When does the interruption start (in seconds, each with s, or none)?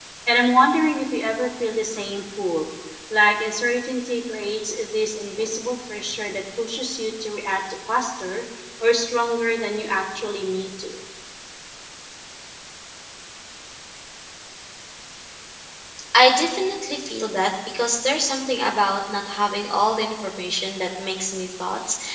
none